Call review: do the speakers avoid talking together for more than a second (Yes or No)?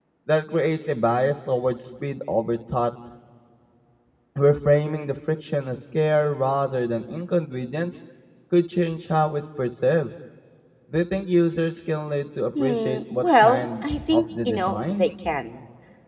No